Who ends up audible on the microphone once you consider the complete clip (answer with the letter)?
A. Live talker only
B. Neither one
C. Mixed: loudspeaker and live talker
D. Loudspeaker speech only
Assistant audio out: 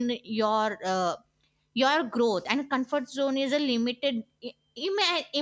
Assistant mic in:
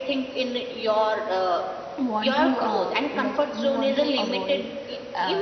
C